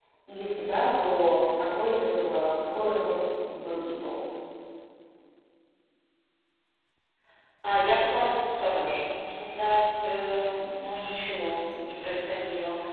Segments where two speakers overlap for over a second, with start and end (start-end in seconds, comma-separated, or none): none